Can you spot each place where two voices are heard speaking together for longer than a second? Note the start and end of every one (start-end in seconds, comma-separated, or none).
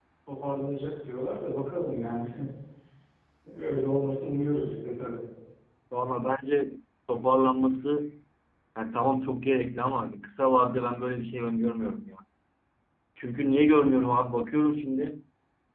none